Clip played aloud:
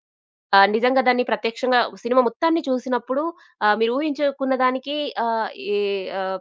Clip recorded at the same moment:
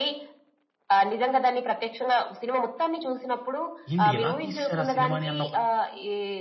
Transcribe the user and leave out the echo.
ఏంటి ఇలా తీసేసారు ఆ సినిమాని అన్న ఒక,

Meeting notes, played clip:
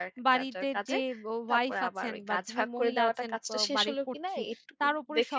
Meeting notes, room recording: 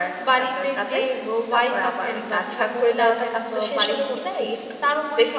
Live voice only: none

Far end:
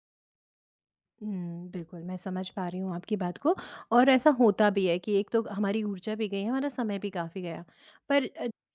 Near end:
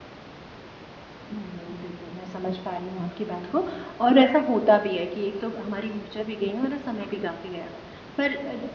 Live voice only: none

